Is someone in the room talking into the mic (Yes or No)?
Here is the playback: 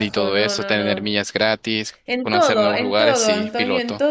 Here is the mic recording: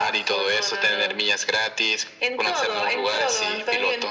No